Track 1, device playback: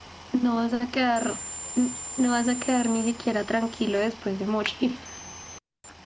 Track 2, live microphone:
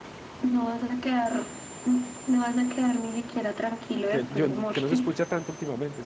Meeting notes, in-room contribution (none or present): present